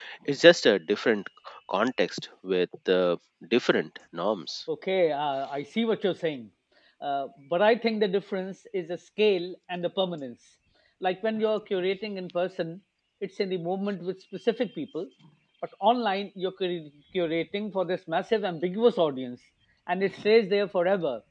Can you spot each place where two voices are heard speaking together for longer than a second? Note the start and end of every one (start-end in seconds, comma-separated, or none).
none